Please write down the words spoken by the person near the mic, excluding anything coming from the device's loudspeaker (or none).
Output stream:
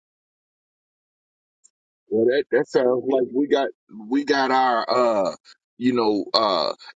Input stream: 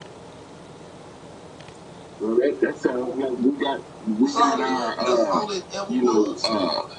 That's all it was. That's all it ever was.